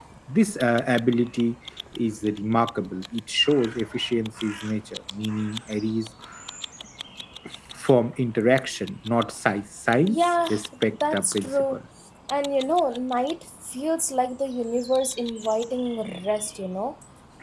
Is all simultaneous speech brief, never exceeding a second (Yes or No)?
No